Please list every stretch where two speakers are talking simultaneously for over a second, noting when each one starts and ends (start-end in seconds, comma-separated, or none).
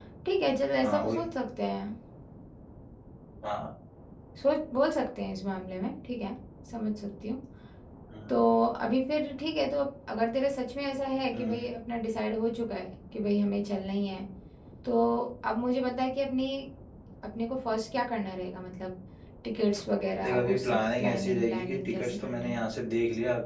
20.2-22.6